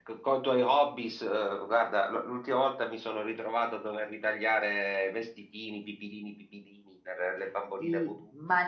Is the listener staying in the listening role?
No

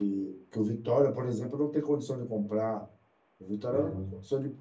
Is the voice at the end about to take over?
No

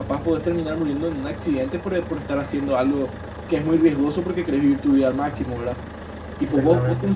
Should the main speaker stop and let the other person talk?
No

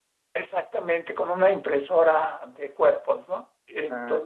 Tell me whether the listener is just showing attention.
No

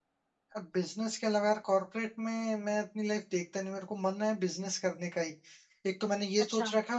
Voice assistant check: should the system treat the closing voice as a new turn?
No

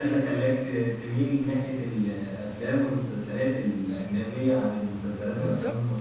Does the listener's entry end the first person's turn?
Yes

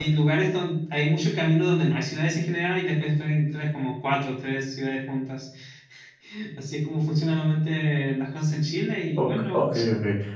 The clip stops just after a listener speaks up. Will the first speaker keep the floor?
No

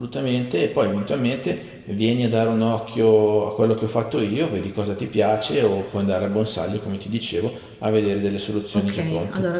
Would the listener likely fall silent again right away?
No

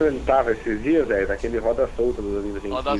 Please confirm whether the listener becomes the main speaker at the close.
Yes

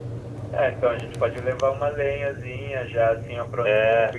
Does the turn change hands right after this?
No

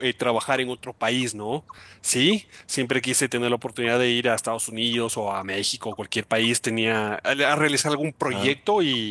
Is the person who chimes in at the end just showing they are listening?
Yes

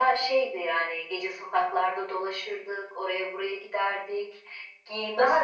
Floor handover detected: No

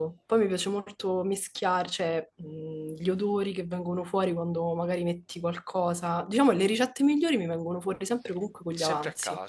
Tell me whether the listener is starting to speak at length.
Yes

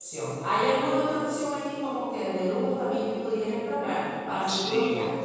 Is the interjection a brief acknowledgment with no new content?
No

